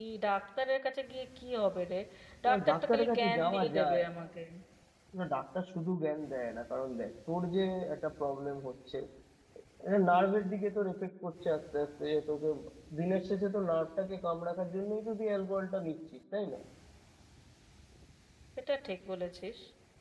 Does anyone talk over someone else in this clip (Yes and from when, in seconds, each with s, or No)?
Yes, from 2.5 s